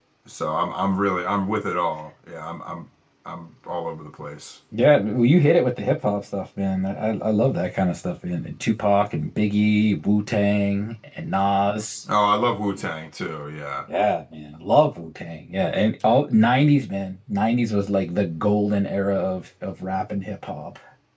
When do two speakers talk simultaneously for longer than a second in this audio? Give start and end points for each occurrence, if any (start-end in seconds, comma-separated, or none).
none